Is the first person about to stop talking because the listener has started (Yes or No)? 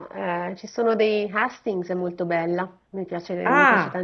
No